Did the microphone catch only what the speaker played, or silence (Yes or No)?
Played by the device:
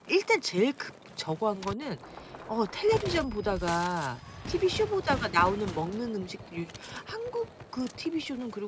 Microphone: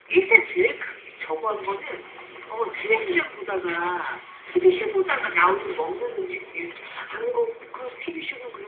No